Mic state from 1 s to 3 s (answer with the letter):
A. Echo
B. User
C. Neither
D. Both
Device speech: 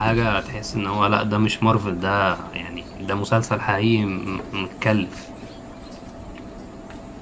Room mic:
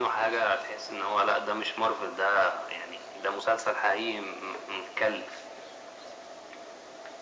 A